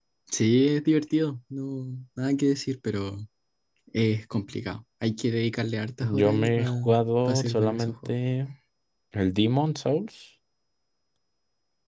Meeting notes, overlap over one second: present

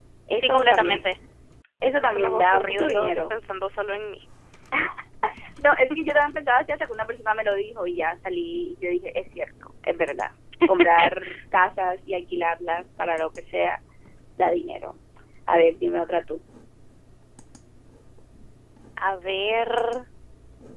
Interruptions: present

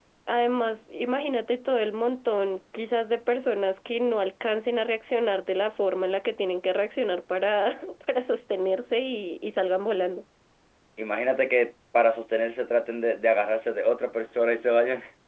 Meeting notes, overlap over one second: none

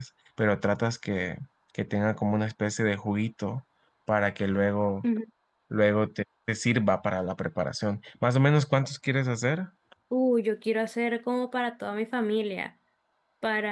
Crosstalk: none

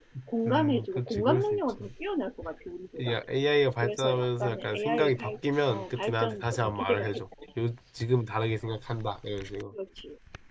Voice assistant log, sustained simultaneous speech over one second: present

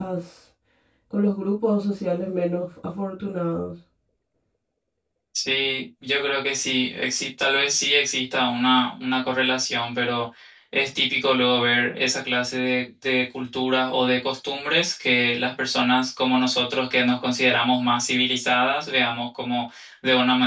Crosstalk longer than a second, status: none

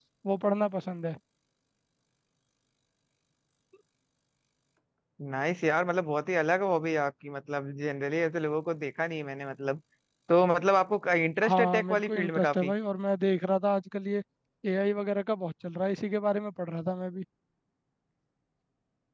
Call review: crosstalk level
present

